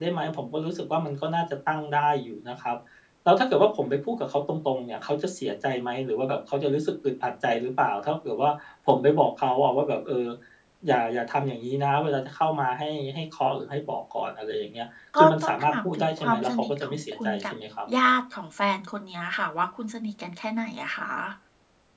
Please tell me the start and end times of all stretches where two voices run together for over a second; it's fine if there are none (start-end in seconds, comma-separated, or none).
15.2-17.5